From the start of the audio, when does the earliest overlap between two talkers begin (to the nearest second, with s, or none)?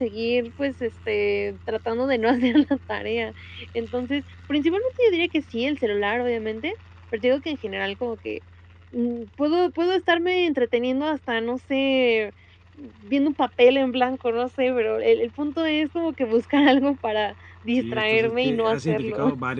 18 s